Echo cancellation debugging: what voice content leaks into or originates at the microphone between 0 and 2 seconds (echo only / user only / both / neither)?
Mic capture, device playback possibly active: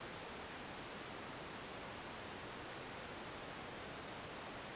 neither